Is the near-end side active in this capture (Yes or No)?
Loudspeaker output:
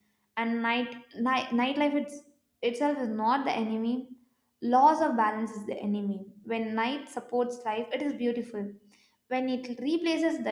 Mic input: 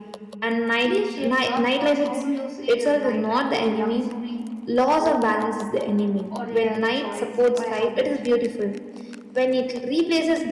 Yes